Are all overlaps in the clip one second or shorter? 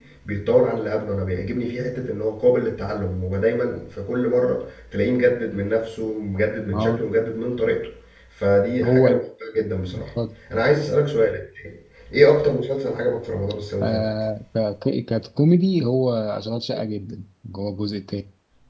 Yes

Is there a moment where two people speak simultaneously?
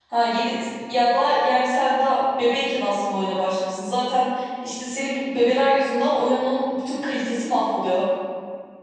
No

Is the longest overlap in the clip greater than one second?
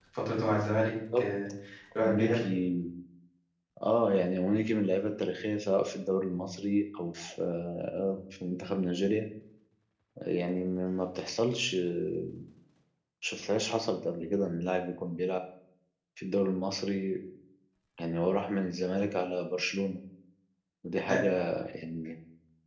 No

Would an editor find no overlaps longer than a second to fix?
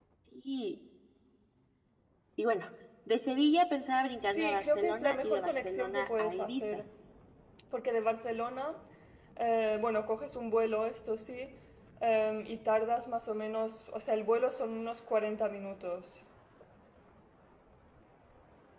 No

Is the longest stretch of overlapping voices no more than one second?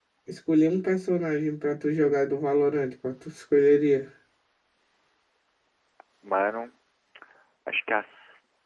Yes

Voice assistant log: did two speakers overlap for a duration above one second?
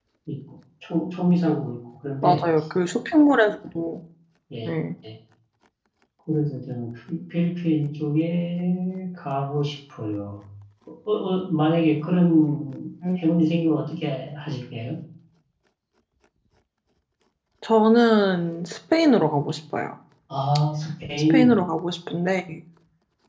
No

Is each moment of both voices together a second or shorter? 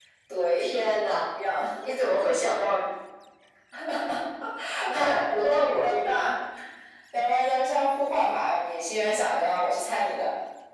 No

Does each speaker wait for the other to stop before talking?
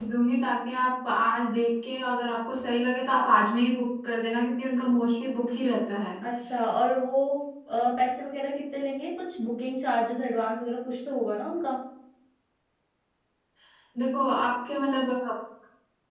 Yes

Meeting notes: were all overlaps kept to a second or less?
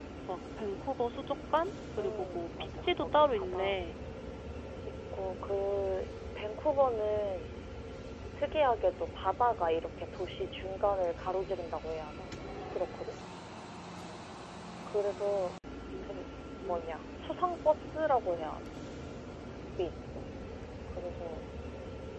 No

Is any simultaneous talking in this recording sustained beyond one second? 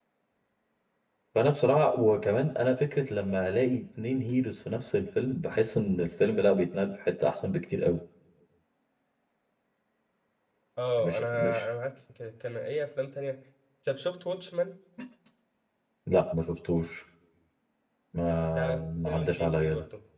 Yes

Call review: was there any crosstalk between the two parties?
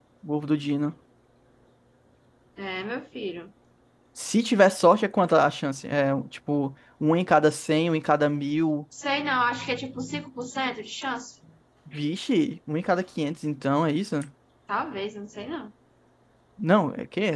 No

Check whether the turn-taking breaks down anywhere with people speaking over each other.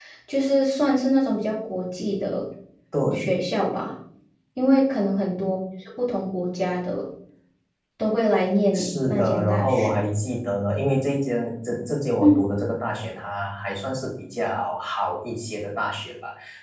Yes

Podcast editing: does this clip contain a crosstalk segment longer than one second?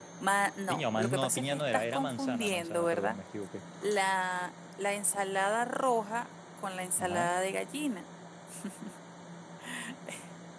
Yes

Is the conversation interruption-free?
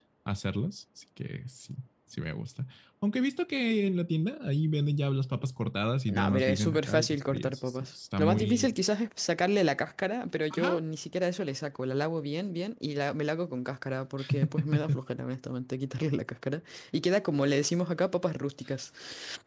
No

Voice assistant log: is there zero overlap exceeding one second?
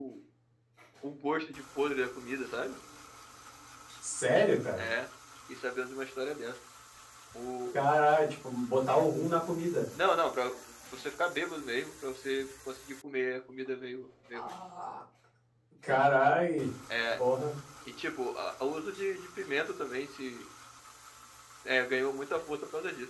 Yes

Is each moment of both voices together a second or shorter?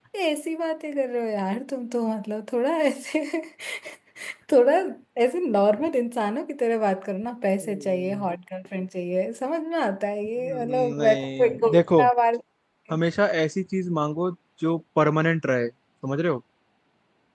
No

